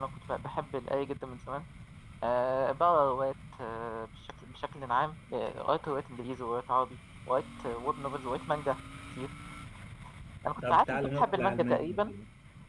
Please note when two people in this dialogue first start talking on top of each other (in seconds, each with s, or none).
10.7 s